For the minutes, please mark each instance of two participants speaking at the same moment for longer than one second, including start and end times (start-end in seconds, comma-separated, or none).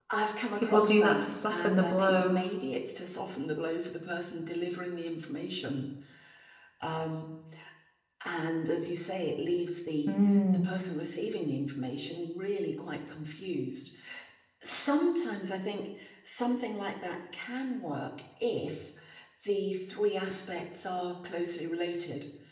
0.6-2.4